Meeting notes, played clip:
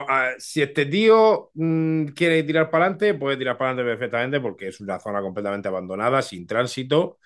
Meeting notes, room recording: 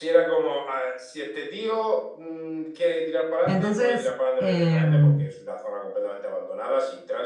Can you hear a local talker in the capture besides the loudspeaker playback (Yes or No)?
Yes